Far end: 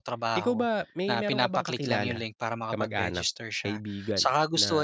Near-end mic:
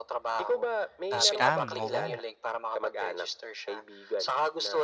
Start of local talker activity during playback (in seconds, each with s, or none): 1.1 s